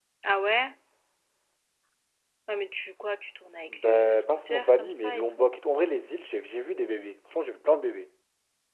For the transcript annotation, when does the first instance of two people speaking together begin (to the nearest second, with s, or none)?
4 s